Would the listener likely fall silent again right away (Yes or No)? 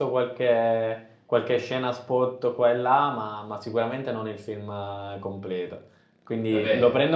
Yes